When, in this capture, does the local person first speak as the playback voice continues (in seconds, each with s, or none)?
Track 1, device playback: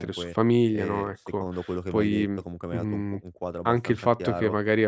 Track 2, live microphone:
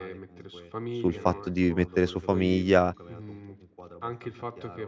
0.9 s